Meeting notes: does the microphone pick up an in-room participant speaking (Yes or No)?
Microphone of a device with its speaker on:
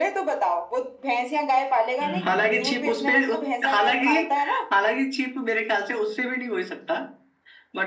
Yes